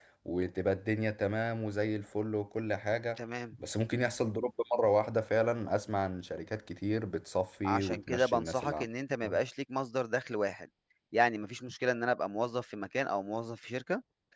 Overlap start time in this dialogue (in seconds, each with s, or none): 7.7 s